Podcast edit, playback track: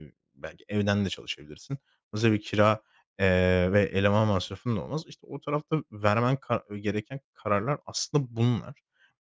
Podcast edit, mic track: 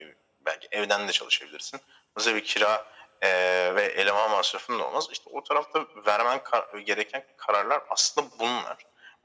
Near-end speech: none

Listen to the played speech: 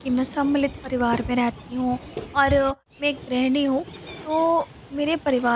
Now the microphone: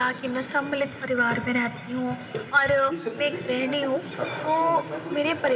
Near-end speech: present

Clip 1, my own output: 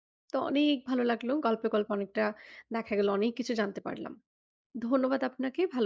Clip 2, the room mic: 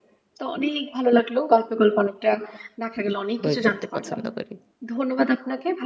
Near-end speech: present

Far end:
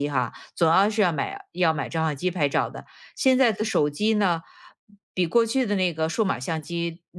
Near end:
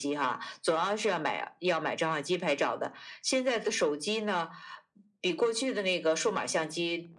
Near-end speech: none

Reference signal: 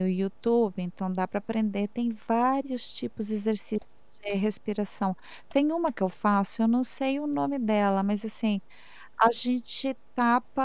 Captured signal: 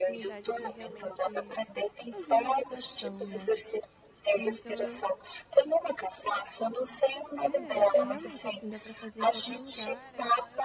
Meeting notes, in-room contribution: present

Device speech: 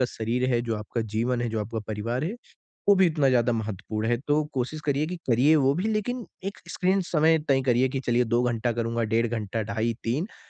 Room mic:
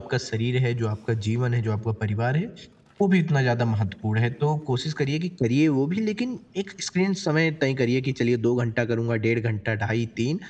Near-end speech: none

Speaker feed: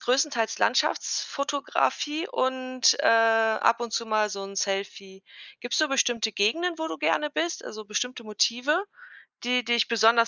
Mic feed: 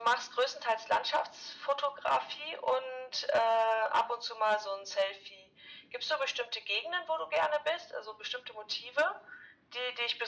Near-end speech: none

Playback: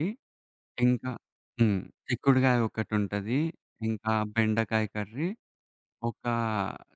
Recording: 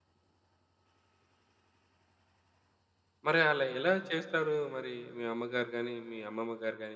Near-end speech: present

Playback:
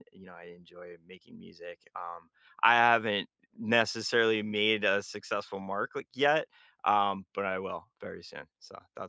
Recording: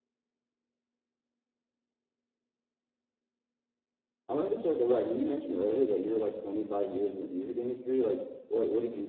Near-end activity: present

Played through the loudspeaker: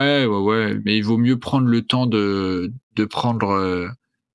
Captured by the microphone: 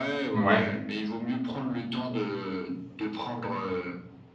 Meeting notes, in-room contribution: present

